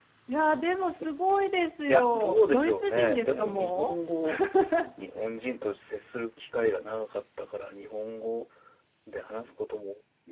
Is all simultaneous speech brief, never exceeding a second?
No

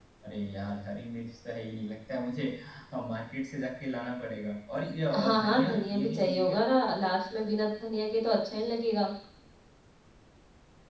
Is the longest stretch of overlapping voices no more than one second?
No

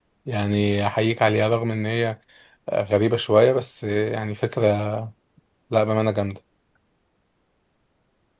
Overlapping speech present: No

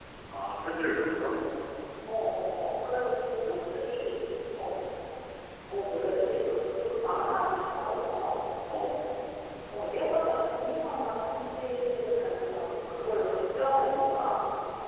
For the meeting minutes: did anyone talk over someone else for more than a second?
No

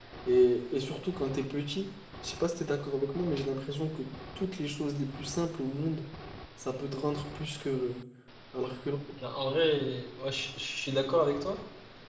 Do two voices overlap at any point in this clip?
No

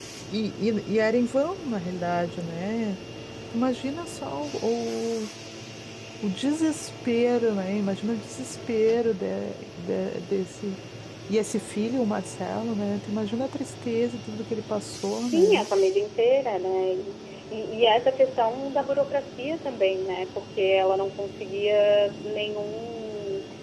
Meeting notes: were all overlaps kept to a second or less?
Yes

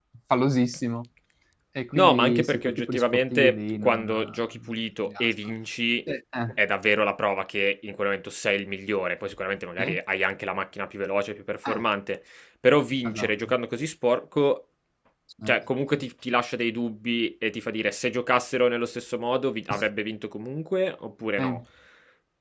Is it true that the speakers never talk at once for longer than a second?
No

